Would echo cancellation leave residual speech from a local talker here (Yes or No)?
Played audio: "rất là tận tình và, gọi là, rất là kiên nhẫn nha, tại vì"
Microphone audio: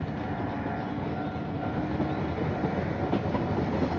No